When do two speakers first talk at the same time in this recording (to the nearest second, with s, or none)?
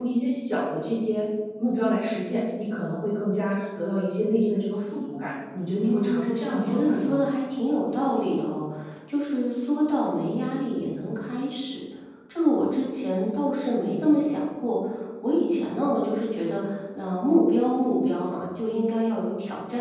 6 s